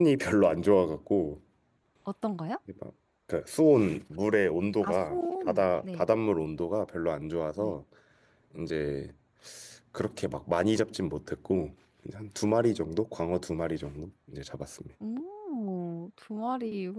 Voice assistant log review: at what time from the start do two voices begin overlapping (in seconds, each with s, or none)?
4.8 s